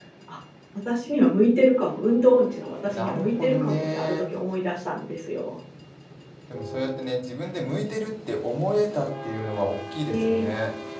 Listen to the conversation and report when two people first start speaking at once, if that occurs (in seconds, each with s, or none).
2.9 s